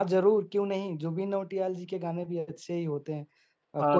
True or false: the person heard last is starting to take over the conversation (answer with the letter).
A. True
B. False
A